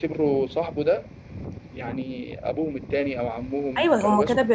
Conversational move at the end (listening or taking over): taking over